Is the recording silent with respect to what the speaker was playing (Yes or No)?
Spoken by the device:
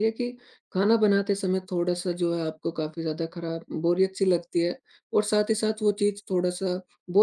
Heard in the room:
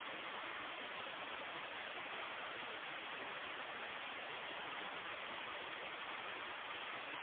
Yes